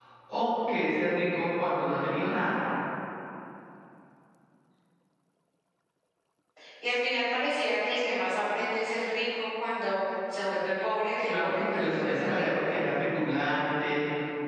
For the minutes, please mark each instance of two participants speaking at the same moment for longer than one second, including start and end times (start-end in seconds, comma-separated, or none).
11.3-12.8